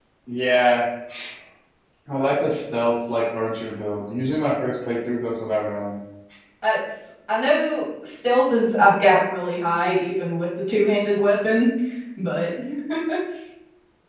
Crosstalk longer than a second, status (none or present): none